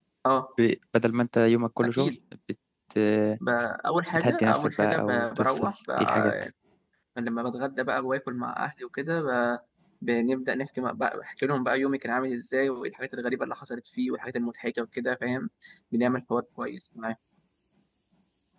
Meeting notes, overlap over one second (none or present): present